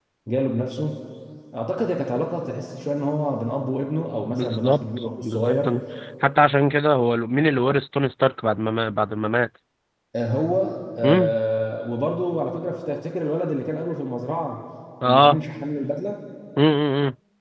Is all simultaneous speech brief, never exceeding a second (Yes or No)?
No